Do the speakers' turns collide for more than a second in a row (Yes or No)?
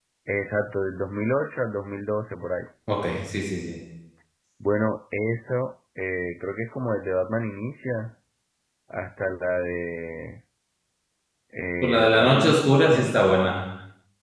Yes